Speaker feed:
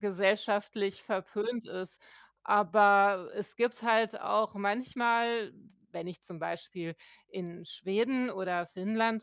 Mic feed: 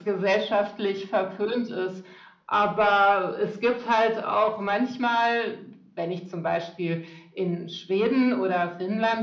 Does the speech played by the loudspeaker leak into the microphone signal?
Yes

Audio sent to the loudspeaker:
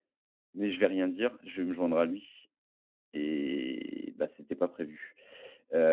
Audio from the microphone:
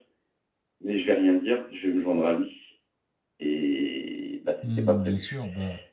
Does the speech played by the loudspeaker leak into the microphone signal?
Yes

